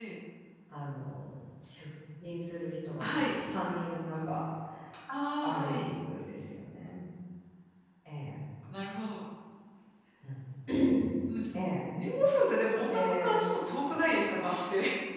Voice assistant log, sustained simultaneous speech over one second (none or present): none